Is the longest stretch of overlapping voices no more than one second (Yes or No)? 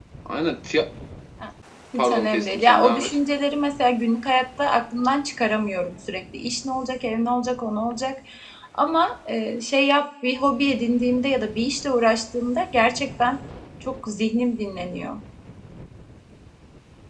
No